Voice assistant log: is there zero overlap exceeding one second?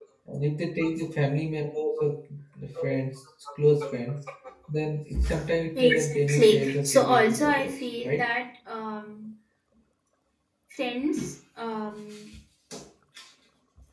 No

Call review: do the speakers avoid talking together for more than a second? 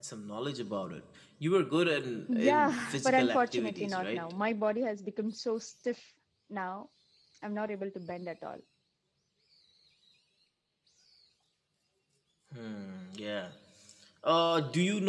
No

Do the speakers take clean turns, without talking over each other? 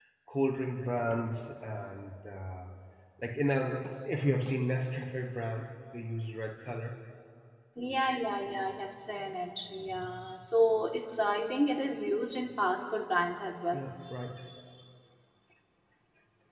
Yes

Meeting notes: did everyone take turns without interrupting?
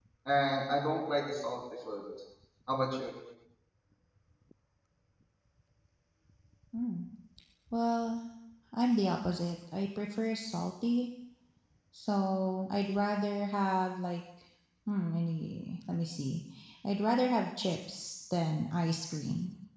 Yes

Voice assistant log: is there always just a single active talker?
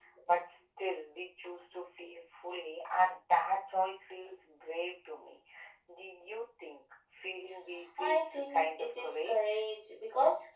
No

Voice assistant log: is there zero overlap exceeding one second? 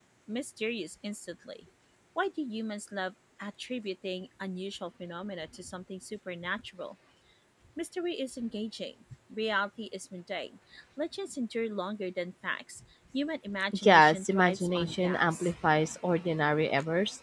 No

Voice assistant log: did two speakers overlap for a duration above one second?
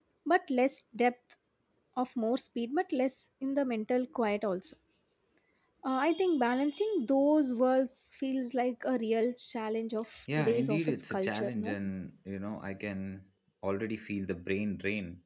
Yes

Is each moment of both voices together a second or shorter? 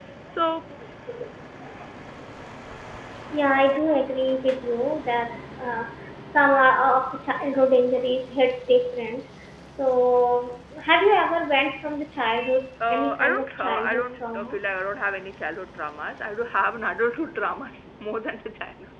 No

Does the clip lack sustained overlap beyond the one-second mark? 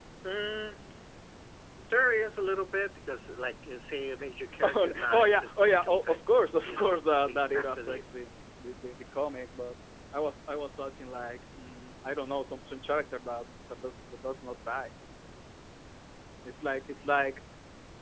No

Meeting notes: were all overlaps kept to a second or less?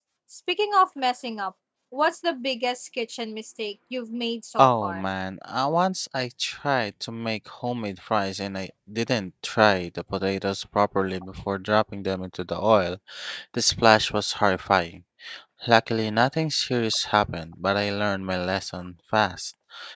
Yes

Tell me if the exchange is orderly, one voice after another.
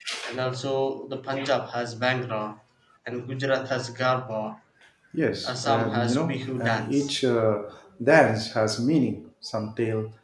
No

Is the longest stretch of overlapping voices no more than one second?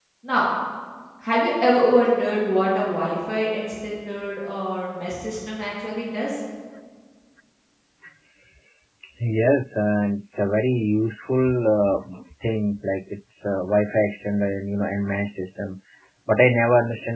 Yes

